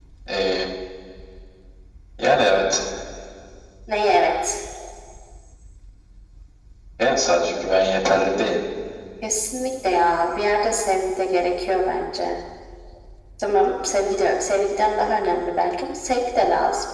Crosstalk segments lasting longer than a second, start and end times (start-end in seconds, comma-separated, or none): none